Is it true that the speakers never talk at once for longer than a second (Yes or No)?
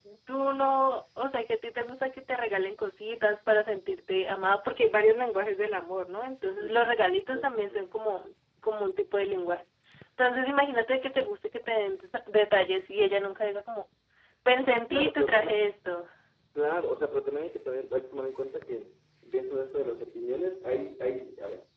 No